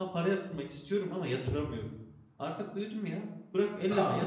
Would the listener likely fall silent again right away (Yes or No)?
No